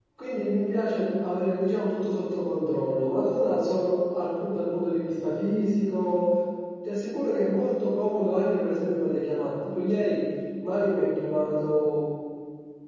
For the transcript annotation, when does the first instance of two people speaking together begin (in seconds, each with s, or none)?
none